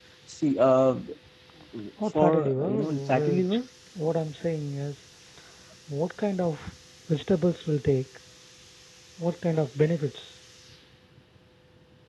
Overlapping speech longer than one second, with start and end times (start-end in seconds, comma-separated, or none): 2.0-3.6